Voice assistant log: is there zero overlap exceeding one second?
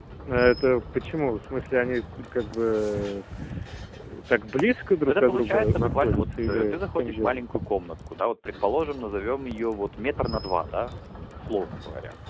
No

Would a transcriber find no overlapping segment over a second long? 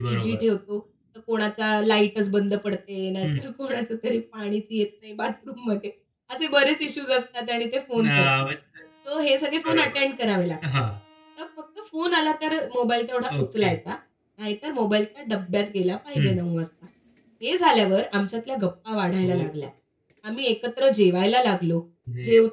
Yes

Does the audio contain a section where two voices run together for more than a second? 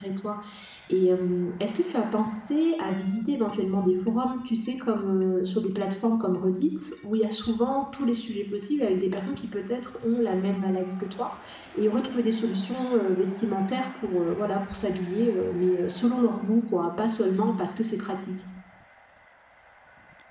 No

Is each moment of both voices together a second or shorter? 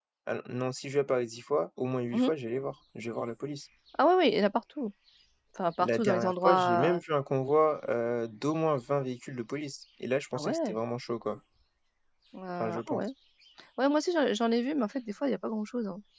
No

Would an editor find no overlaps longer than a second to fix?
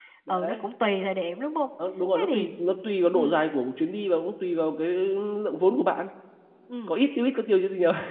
Yes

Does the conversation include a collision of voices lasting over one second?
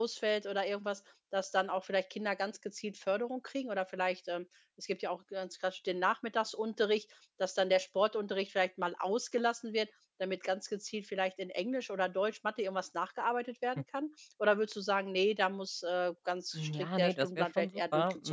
Yes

